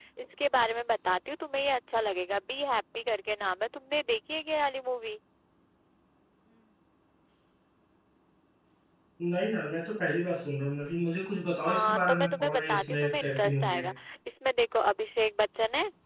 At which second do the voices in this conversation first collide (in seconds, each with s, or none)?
11.7 s